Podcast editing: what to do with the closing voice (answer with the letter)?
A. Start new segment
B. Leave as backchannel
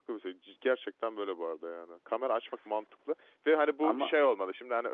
B